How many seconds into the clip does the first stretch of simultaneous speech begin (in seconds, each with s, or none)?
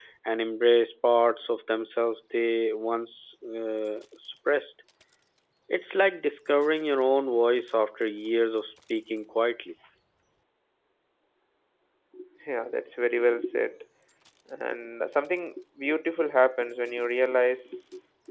none